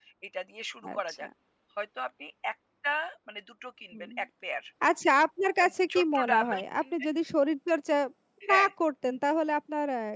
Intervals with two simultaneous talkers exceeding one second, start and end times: 5.6-6.9

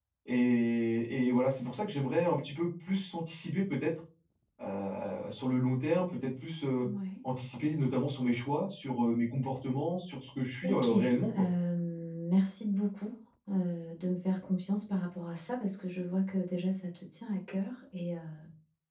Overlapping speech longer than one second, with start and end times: none

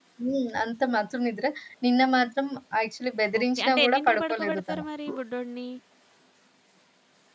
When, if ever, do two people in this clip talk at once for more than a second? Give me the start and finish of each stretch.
3.4-4.8

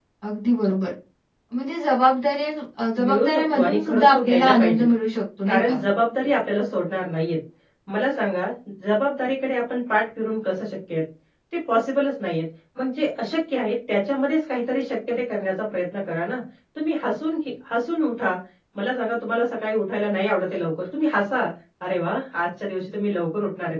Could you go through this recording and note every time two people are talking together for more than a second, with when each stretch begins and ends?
3.0-4.9

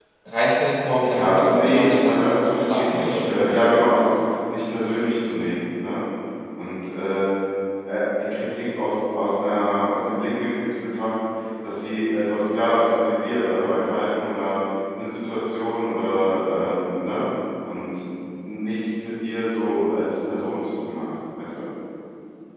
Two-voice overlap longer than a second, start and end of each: 1.1-3.7

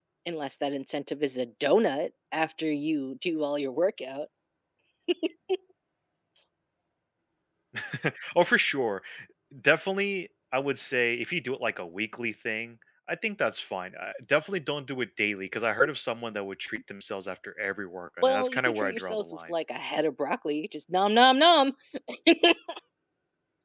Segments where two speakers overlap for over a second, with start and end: 18.2-19.5

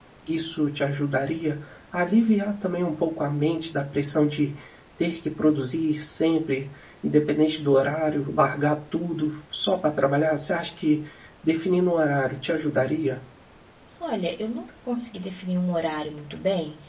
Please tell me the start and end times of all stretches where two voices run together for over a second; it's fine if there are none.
none

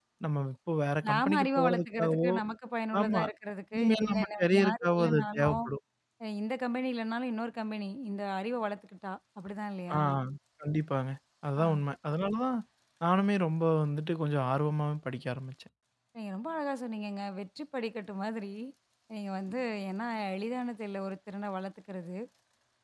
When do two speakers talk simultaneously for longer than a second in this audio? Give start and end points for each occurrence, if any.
1.1-2.3, 3.7-5.6

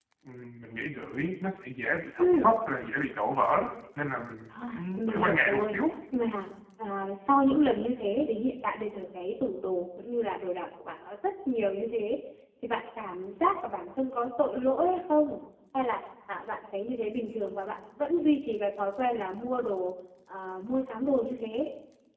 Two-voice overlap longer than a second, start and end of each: 4.5-5.8

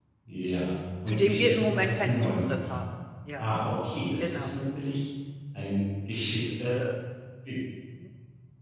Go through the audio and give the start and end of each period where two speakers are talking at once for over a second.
1.1-2.8

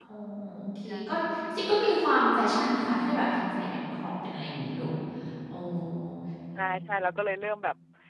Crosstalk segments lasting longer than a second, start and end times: none

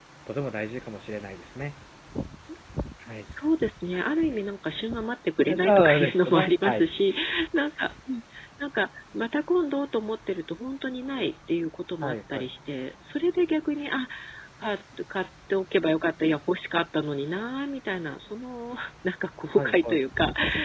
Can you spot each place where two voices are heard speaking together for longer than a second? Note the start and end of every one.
5.5-6.8

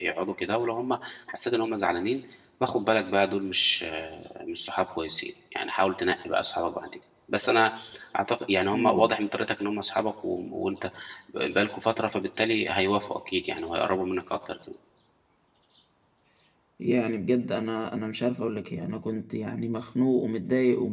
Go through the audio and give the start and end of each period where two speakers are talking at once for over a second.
none

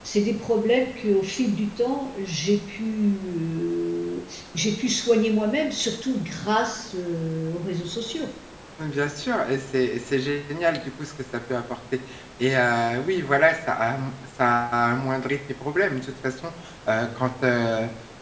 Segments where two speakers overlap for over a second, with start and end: none

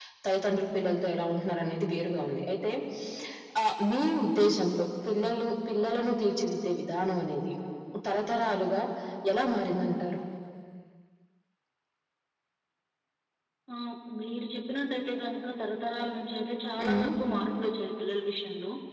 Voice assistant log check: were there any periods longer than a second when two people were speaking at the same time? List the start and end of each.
none

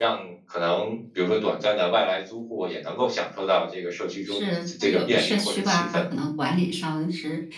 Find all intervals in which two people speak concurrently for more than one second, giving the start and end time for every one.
4.3-6.0

